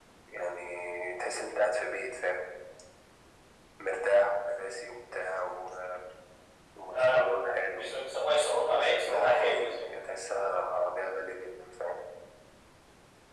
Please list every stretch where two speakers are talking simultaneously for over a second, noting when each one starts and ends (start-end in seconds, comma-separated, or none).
8.7-10.0